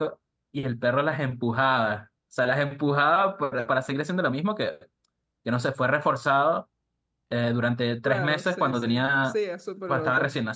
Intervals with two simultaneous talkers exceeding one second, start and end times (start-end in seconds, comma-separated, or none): 8.1-9.3